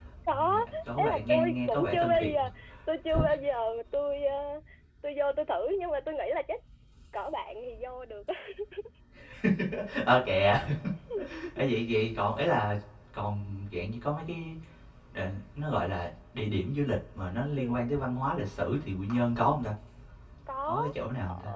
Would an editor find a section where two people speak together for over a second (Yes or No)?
Yes